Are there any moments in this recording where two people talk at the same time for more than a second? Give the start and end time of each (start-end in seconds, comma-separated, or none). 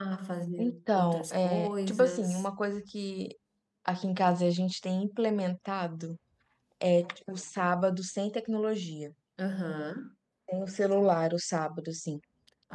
0.6-2.5